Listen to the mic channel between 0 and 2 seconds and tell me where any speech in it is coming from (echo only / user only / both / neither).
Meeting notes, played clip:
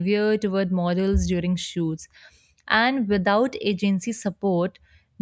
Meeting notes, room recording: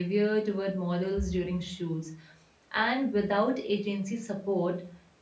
echo only